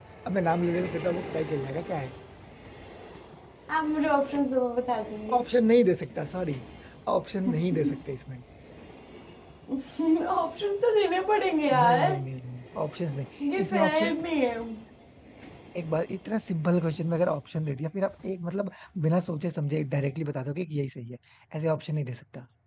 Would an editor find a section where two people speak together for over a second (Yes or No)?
No